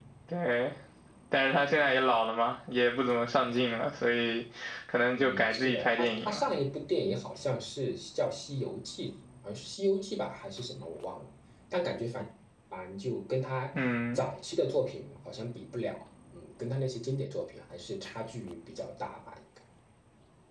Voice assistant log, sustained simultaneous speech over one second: present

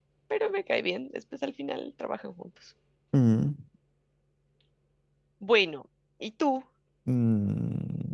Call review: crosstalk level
none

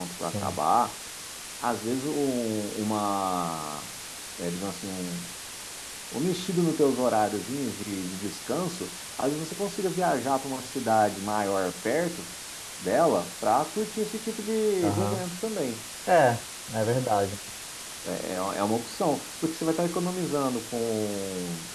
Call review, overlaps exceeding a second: none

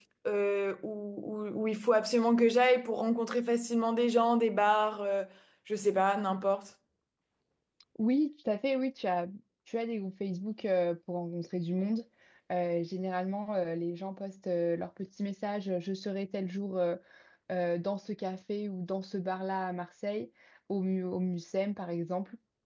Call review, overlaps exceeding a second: none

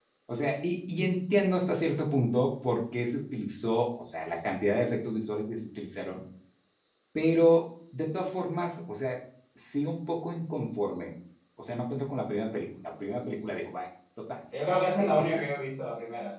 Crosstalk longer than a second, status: none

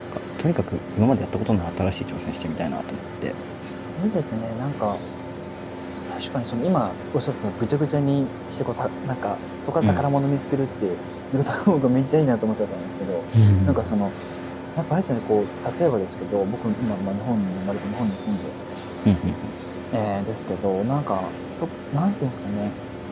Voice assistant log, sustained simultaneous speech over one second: none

